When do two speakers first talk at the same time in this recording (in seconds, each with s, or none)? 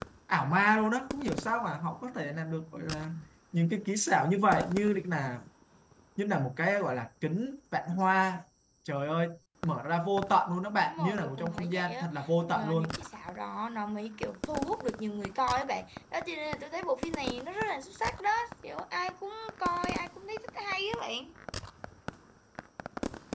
10.8 s